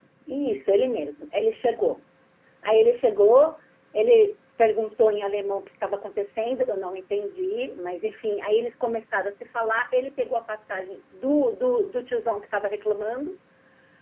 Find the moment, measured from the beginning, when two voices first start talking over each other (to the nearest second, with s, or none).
none